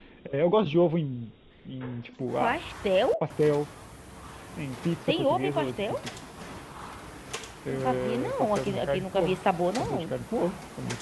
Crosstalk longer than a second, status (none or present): present